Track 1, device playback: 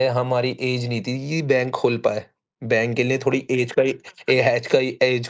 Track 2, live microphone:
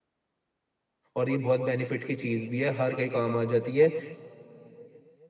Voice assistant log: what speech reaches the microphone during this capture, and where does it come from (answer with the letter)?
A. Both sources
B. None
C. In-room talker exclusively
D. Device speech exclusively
C